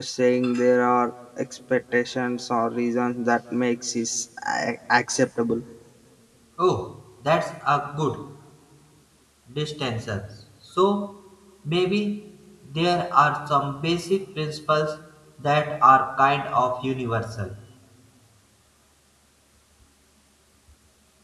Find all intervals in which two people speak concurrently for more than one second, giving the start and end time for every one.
none

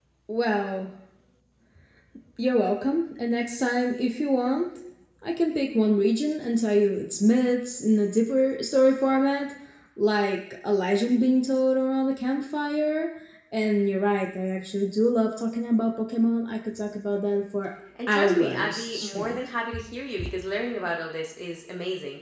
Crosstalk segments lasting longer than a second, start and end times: 18.1-19.4

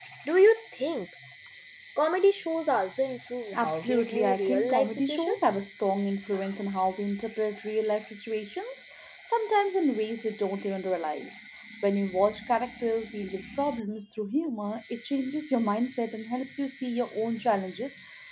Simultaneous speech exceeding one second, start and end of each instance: 3.5-5.6

